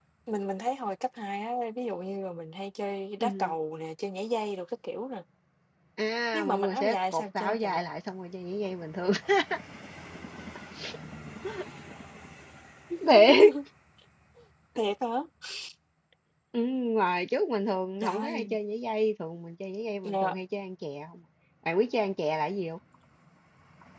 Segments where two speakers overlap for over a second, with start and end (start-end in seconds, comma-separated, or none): 6.3-7.8